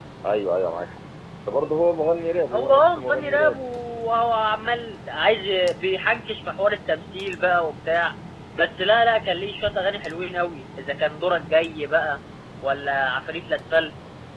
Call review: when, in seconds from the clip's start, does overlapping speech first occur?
2.5 s

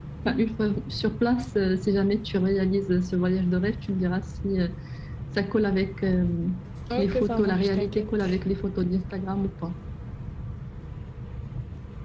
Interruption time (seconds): 7.0 s

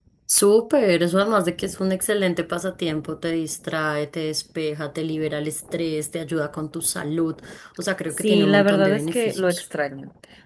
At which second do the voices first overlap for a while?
8.1 s

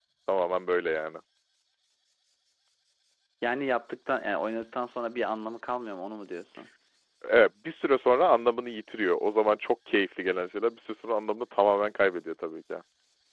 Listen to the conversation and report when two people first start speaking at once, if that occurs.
none

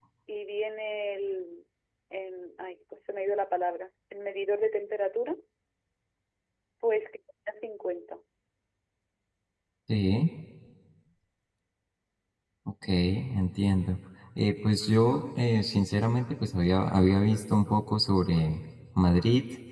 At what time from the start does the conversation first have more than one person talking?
none

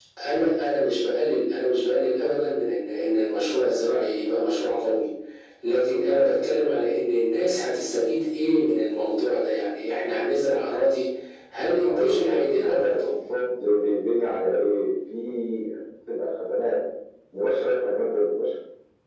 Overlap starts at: 11.7 s

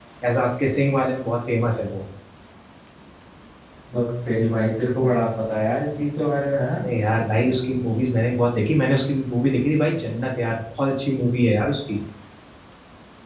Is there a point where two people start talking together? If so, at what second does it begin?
none

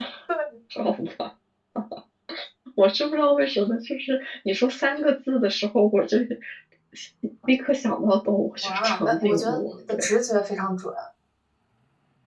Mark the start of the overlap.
8.6 s

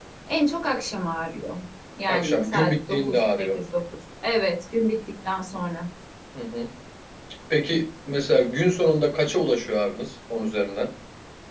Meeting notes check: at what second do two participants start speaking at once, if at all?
2.1 s

